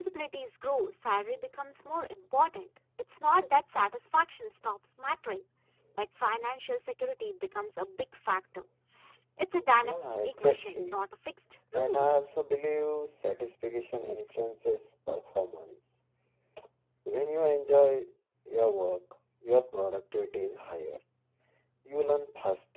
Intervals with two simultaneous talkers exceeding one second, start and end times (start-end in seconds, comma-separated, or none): 9.8-11.0